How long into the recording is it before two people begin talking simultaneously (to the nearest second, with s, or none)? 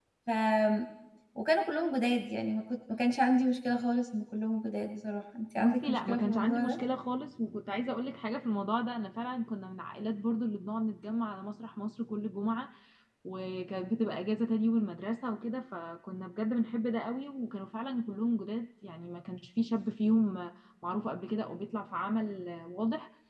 6 s